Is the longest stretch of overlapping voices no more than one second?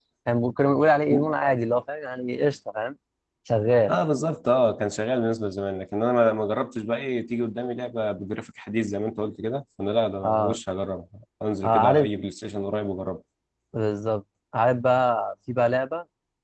Yes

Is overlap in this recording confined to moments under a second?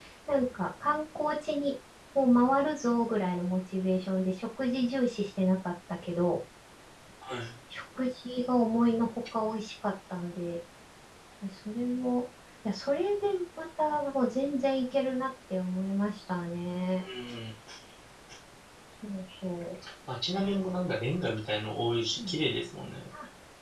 Yes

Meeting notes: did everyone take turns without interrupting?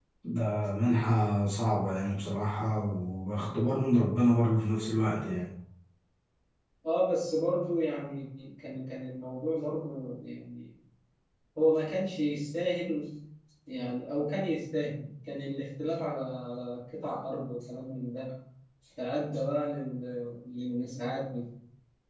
Yes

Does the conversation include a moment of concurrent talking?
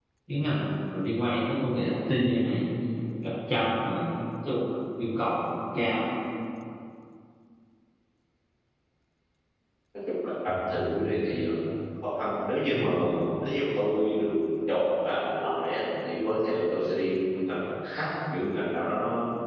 No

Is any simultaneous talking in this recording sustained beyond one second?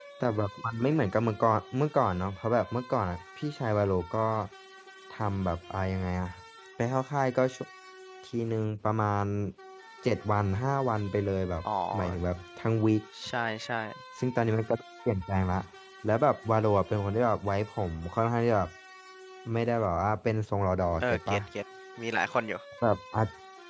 No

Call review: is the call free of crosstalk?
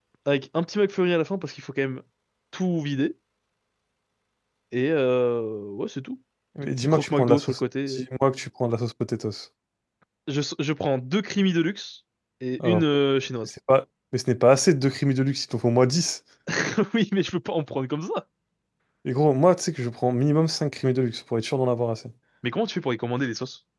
No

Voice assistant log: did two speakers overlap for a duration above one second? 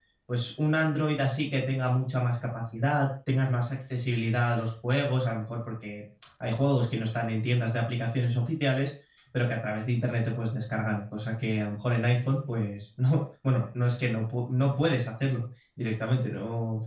No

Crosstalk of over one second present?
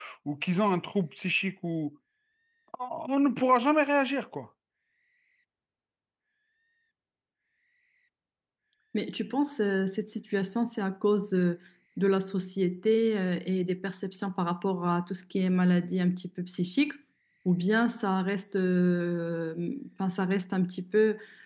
No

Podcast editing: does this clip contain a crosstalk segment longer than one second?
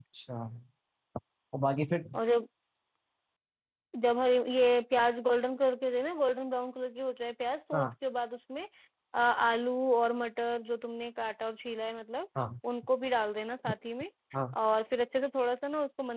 No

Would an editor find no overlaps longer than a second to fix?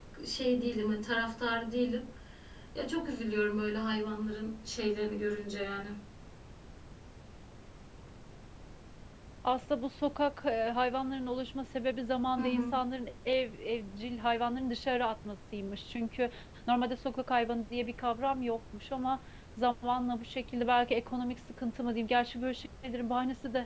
Yes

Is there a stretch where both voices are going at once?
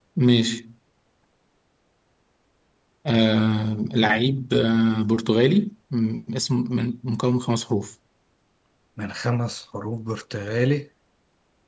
No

